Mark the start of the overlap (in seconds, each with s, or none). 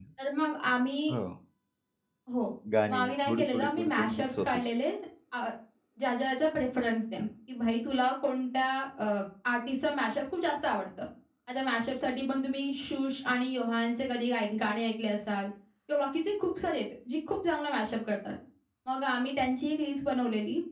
2.9 s